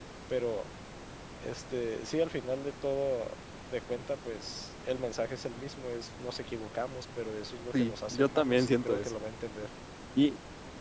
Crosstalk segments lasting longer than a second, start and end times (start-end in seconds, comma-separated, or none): 7.7-9.1